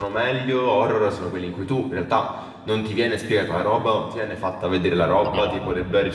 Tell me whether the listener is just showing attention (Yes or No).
Yes